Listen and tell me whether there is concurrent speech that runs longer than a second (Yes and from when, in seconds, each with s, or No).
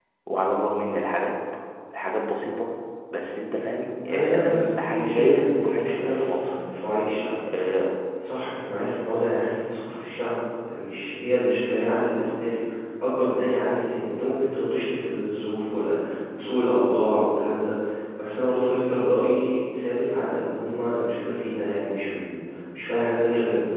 Yes, from 4.1 s